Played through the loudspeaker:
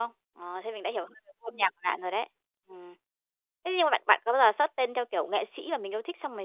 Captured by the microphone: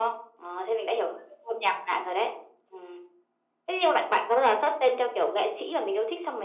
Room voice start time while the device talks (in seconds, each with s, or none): none